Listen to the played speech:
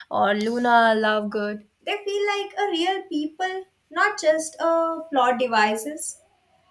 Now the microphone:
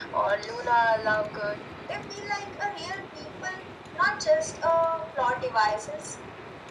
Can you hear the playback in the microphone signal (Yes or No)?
Yes